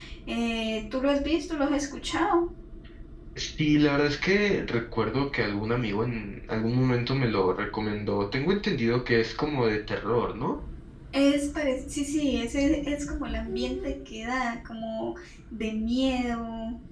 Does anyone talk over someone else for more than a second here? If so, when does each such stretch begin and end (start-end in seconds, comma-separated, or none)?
none